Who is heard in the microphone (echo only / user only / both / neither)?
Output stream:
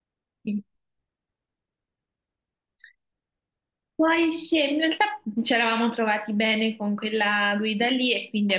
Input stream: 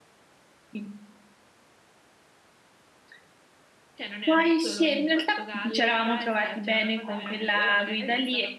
both